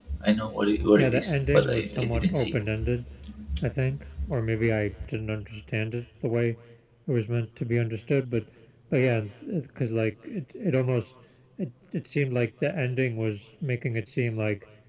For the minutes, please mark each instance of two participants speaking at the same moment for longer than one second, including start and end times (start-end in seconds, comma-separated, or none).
0.9-2.5